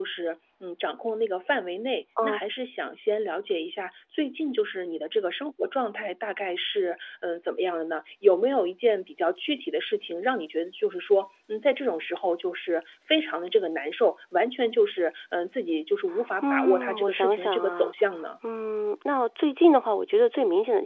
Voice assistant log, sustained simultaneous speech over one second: present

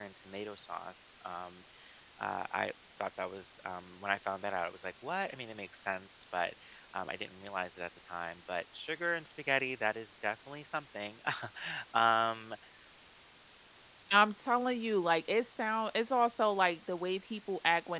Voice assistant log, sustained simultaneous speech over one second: none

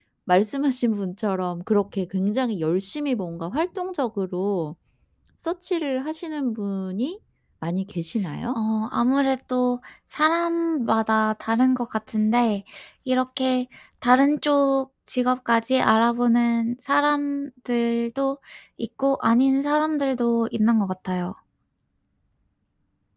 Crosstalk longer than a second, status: none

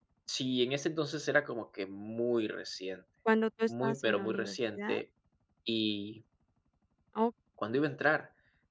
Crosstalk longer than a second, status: present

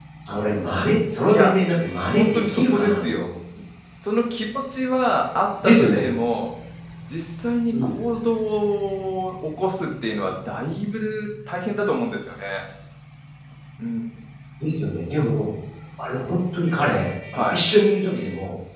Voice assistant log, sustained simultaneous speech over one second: present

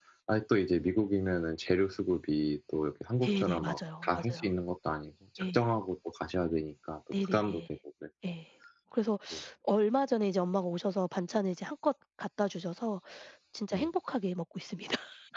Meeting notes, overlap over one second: present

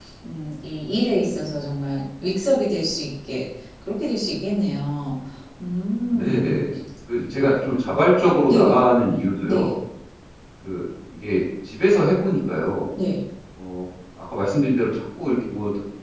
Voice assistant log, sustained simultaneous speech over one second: none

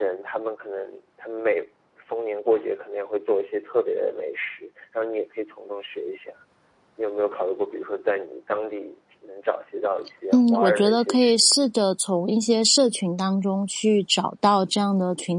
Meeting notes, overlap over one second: present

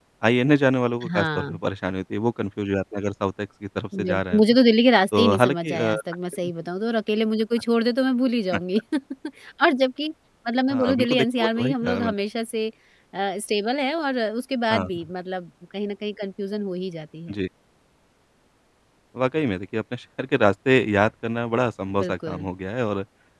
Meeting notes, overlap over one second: present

